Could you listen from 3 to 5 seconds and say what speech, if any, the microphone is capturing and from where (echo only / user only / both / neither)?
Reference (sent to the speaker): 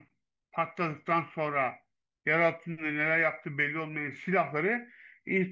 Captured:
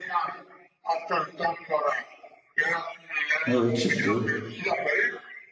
both